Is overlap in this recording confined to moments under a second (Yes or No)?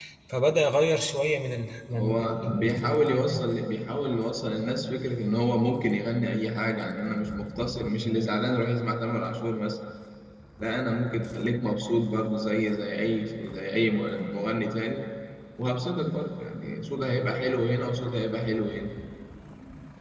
No